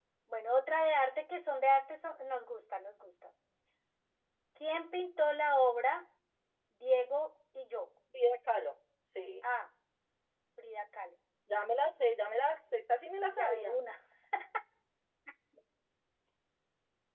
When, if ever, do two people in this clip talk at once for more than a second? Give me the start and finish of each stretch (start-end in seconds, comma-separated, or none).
none